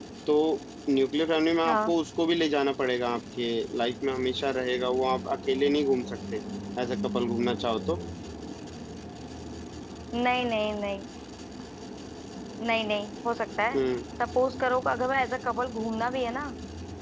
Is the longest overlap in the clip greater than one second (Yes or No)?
No